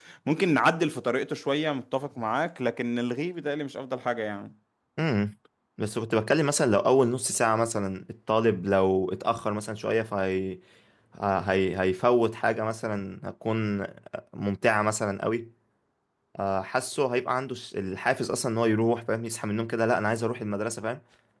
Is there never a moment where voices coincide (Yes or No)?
Yes